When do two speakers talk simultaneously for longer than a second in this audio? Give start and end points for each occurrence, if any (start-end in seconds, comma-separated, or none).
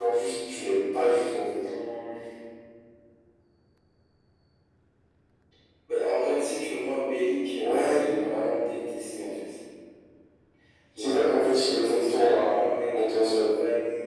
11.0-13.4